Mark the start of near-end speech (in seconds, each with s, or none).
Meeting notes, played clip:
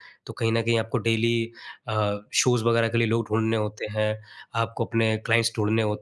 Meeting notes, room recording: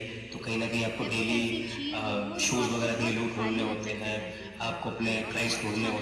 1.0 s